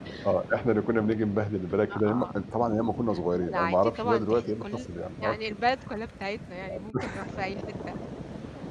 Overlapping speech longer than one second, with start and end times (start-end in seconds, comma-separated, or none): 3.3-5.6